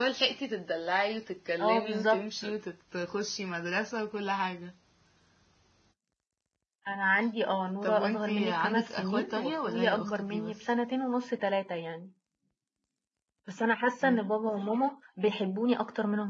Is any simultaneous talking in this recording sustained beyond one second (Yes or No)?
Yes